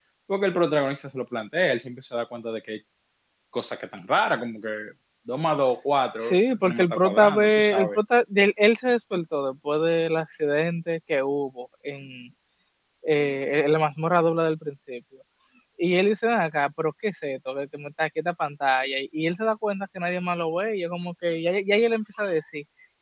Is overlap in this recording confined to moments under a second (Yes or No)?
No